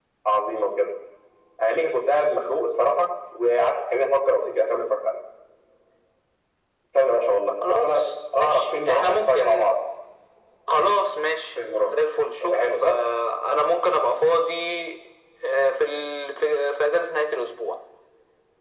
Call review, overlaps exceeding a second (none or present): present